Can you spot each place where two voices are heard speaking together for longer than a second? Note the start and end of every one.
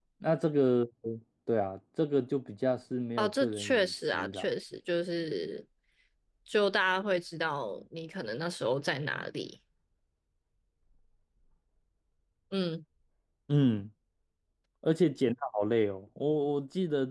3.2-4.5

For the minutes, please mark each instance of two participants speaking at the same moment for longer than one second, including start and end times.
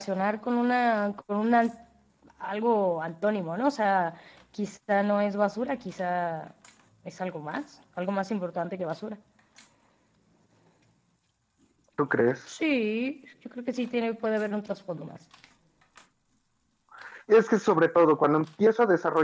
none

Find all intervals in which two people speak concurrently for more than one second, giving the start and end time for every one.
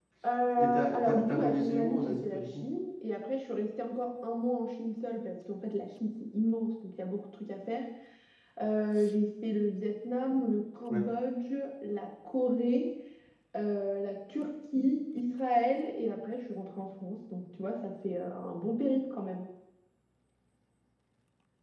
0.6-2.6

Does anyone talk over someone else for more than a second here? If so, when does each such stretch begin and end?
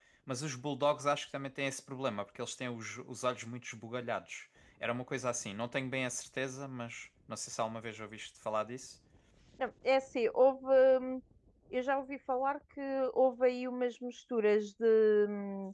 none

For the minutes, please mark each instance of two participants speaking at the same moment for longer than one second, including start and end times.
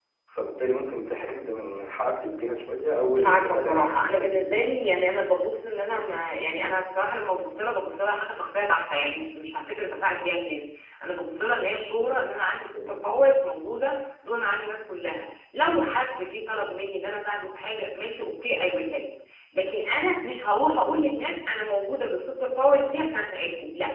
3.1-4.6

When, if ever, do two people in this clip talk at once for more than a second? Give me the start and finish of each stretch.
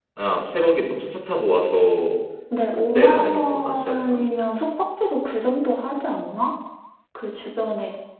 3.0-4.2

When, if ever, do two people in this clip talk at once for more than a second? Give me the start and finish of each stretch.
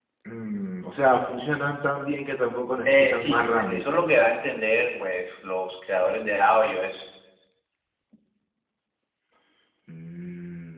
2.8-4.0

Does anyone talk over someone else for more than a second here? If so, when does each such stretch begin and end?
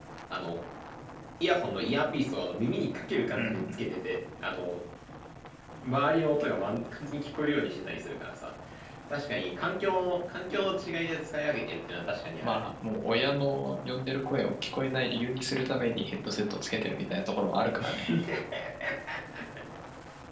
none

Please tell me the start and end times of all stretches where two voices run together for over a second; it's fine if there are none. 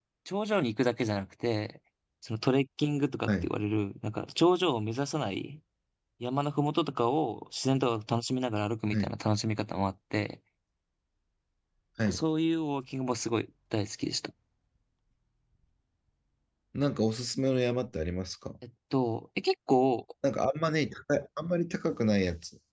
none

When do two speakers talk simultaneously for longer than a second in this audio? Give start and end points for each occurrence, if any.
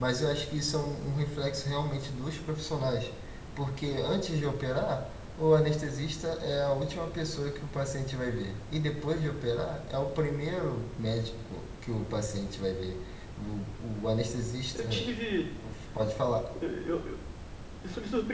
none

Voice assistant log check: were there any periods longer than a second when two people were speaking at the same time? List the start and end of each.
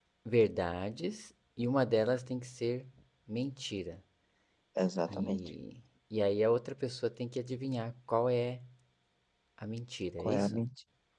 none

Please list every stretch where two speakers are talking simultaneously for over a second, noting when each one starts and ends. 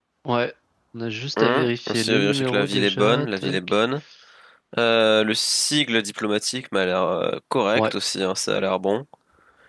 1.4-3.8

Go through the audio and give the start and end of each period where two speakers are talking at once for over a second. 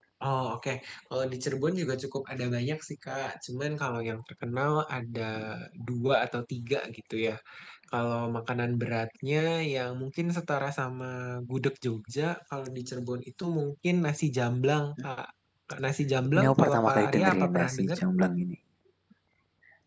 16.4-18.0

